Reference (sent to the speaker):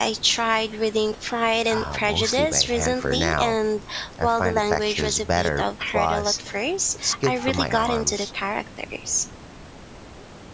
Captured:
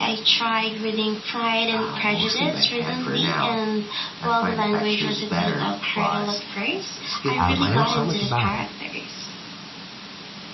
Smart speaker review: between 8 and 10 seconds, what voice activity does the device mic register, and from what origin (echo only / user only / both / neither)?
both